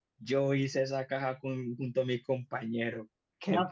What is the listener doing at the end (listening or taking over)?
taking over